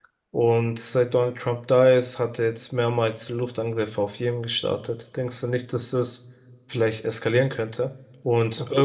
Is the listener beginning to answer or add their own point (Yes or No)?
No